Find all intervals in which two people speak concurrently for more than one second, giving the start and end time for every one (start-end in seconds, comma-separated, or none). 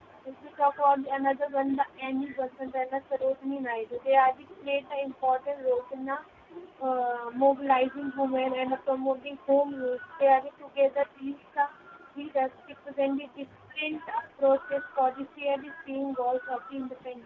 none